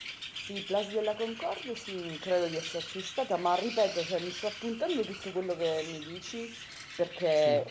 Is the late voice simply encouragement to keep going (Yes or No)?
Yes